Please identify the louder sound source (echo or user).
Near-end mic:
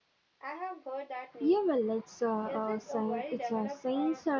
user